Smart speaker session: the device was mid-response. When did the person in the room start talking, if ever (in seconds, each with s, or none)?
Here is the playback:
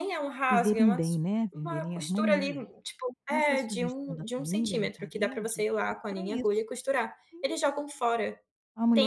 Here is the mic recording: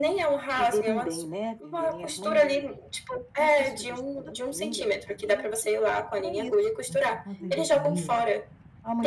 6.8 s